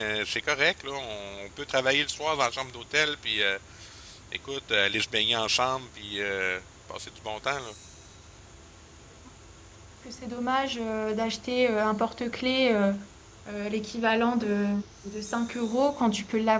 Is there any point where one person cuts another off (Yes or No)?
No